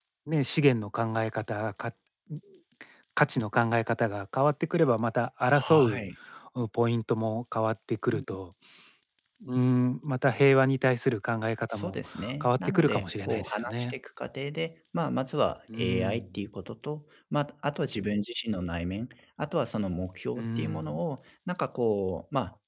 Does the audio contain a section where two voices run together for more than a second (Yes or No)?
Yes